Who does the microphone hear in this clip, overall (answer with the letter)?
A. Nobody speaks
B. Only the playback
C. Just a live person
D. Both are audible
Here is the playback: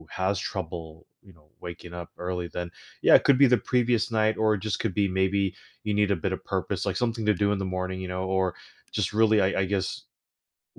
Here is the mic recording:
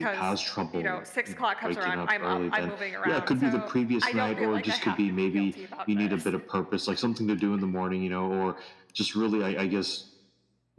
D